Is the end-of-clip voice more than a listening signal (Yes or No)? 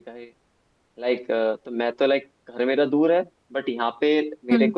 No